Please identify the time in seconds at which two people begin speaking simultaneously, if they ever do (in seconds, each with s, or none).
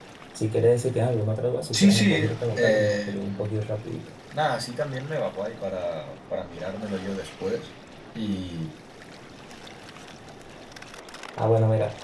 1.7 s